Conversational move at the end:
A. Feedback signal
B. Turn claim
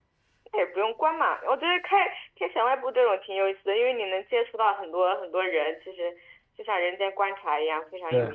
B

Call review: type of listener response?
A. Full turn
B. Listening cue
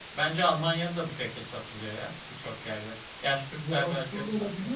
A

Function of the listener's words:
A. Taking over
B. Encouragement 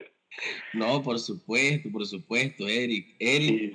B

